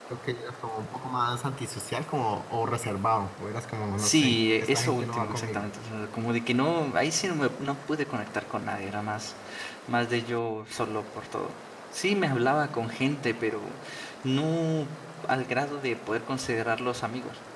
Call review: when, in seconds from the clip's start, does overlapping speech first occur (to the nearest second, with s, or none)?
4 s